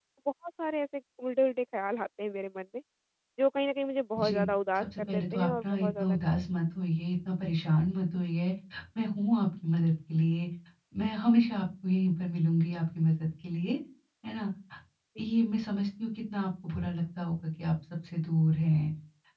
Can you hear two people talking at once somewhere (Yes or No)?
Yes